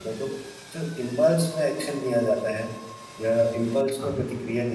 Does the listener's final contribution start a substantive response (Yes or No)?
No